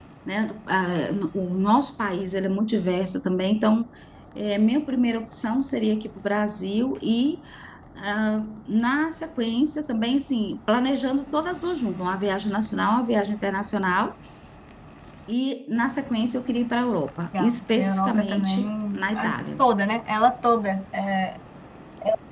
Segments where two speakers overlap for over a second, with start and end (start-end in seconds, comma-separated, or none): 17.4-19.6